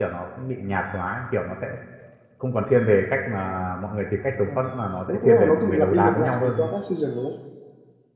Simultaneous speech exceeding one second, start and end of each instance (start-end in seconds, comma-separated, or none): 5.1-6.7